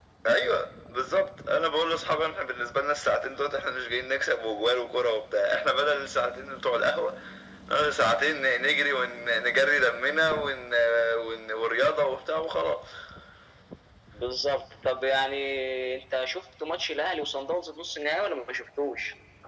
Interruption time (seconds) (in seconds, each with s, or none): none